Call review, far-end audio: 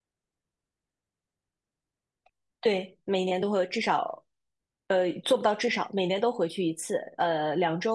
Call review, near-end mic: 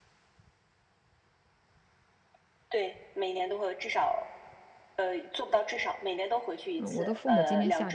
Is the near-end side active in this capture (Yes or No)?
Yes